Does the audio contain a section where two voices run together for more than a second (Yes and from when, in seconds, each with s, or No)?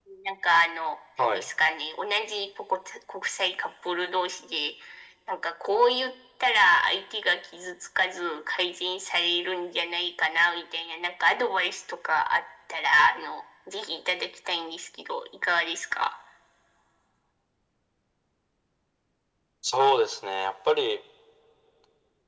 No